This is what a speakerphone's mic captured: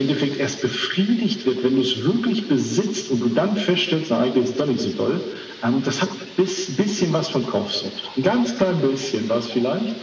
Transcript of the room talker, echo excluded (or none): none